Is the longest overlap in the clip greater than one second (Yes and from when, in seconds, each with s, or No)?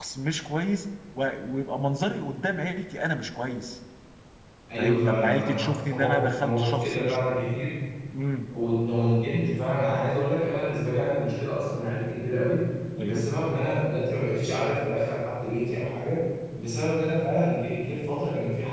Yes, from 4.8 s